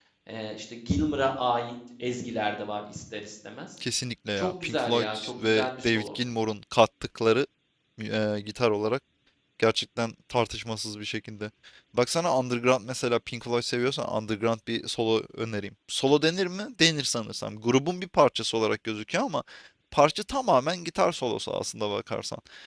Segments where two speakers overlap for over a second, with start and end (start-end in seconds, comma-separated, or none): 4.4-6.2